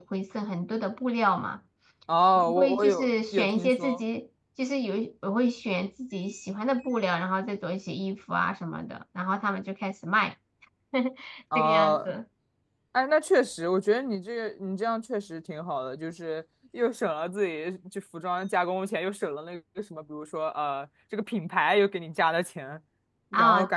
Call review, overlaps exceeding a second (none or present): present